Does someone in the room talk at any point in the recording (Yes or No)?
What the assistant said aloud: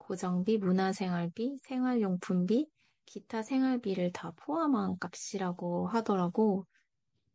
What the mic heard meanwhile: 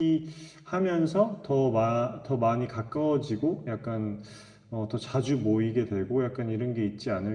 Yes